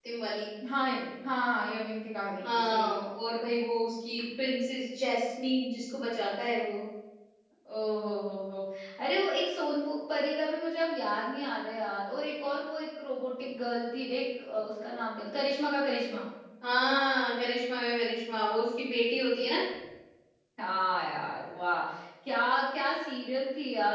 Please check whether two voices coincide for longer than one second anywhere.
No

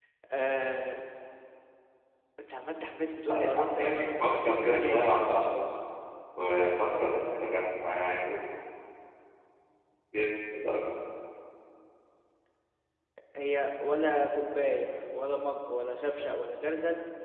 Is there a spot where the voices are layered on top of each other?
Yes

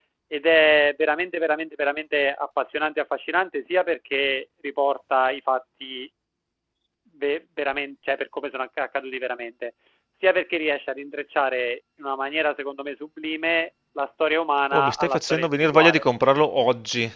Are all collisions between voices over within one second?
No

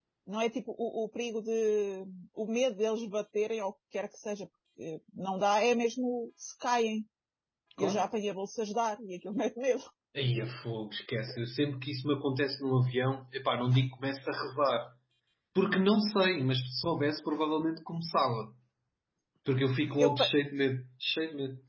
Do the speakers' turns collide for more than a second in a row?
No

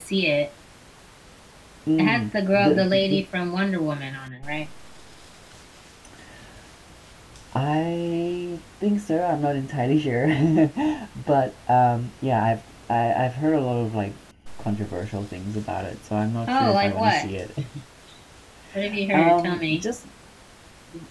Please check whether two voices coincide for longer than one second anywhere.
Yes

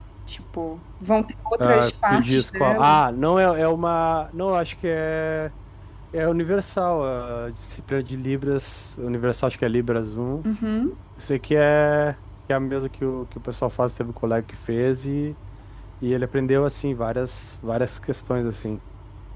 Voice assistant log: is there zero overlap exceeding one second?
No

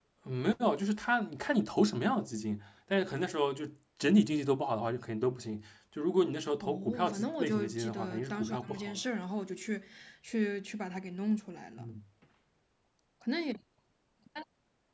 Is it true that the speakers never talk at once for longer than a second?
No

